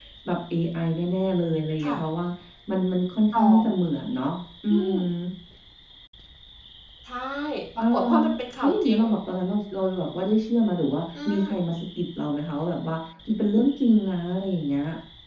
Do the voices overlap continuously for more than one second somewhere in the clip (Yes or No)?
No